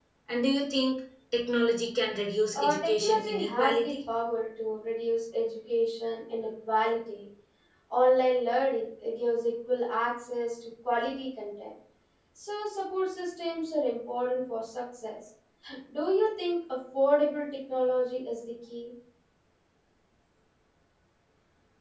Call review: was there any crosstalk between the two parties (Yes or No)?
Yes